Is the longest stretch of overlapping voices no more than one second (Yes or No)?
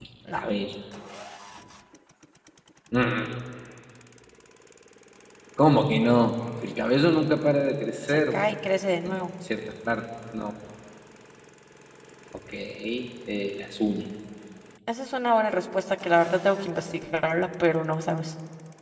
Yes